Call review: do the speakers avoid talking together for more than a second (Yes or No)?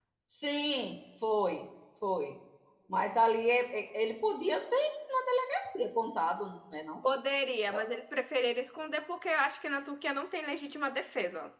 Yes